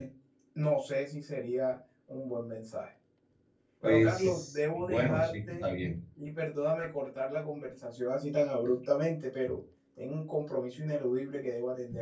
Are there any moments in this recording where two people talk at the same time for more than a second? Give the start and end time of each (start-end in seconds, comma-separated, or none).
3.8-5.6